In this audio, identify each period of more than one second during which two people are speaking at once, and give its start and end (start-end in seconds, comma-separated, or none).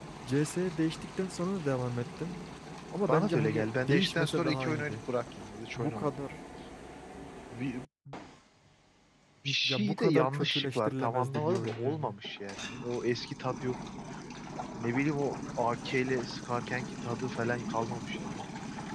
3.1-5.0, 9.7-12.2